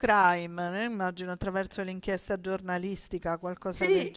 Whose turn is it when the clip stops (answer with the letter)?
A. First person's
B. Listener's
B